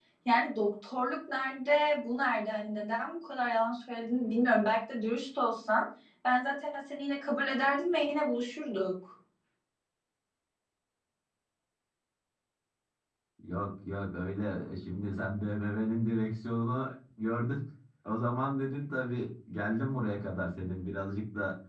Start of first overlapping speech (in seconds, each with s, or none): none